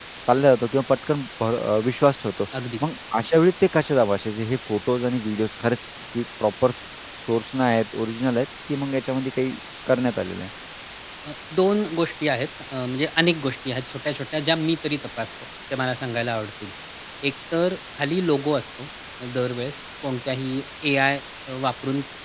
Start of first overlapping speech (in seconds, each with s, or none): none